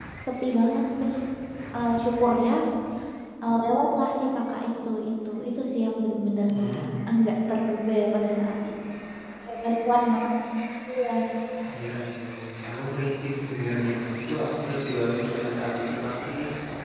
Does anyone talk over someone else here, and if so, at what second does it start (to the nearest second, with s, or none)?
none